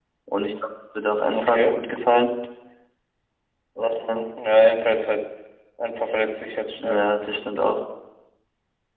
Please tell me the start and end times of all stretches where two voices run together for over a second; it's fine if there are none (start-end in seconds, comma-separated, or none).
none